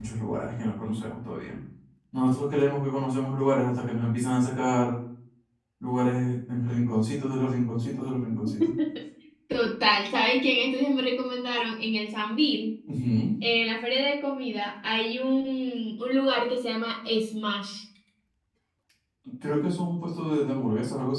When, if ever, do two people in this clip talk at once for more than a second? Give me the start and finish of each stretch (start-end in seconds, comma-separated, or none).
none